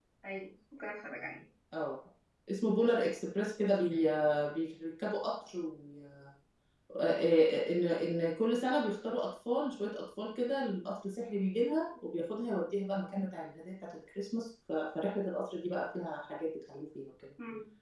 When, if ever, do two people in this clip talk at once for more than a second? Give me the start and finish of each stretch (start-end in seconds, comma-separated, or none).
none